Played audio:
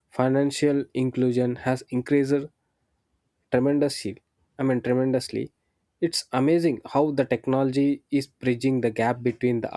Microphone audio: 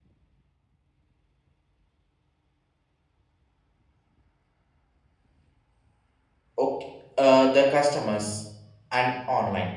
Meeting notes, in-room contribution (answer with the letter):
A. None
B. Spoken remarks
B